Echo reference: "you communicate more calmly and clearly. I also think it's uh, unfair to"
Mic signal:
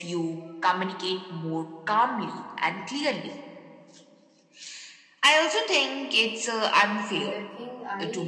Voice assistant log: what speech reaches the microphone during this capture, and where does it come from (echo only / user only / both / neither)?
both